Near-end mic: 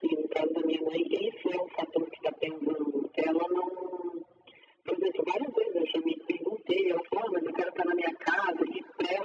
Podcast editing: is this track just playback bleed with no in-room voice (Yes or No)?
Yes